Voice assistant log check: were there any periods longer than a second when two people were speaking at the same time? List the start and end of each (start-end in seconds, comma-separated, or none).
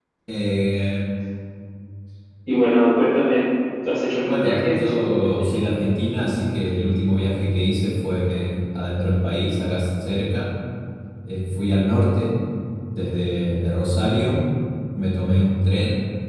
4.2-5.5